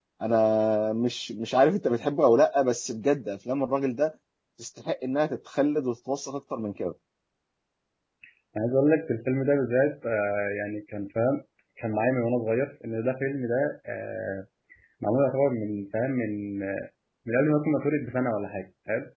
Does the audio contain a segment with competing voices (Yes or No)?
No